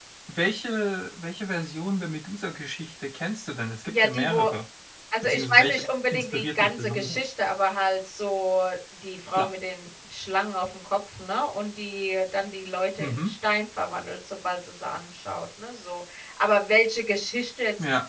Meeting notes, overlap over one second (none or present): present